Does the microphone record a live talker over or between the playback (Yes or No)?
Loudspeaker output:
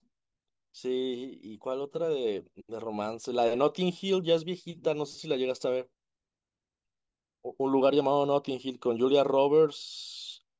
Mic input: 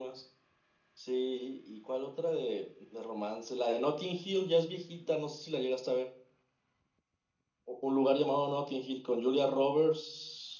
No